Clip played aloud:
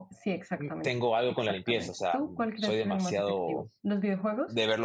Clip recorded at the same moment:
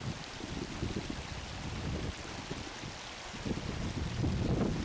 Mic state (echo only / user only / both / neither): neither